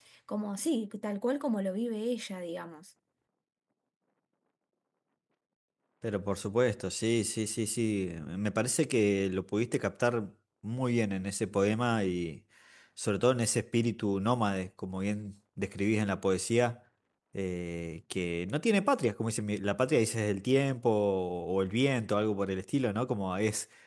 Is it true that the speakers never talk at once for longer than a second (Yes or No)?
Yes